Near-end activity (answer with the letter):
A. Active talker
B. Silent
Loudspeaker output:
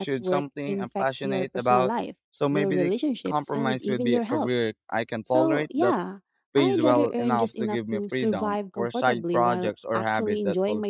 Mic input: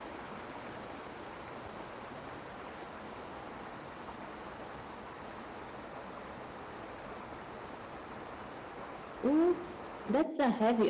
A